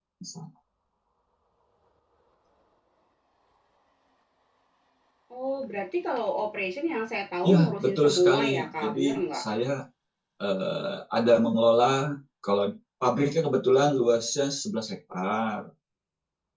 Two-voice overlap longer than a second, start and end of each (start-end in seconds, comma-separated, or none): 7.4-9.4